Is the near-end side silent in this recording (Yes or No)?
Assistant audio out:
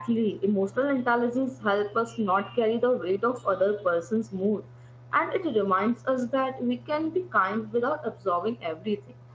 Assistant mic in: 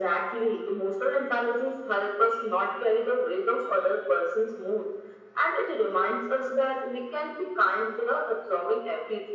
Yes